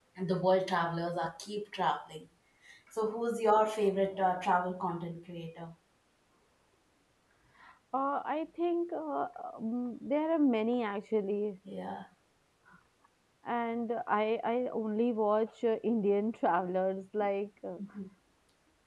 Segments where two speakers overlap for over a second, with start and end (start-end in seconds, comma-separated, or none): none